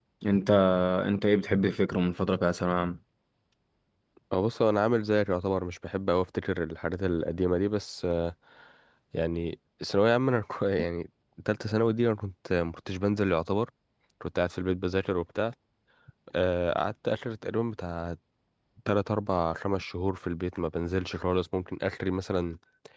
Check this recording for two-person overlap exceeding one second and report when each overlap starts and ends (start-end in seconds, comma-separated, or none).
none